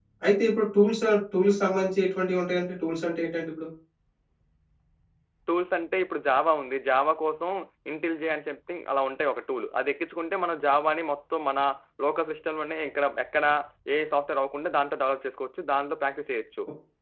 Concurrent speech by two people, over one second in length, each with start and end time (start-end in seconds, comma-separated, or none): none